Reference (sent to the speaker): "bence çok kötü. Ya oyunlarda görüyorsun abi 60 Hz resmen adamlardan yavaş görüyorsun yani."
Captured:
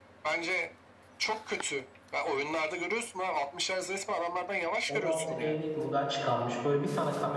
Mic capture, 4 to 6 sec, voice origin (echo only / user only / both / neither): both